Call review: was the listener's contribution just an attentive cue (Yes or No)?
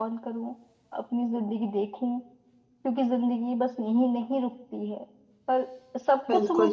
No